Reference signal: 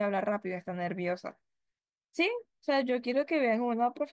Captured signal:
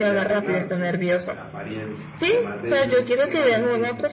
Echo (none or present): present